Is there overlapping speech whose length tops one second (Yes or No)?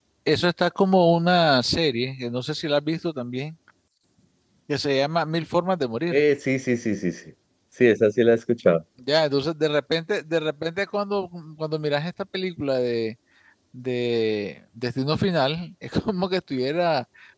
No